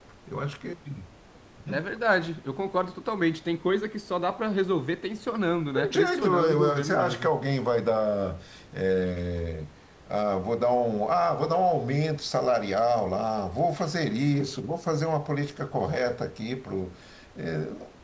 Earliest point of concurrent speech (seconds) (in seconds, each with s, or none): 5.8 s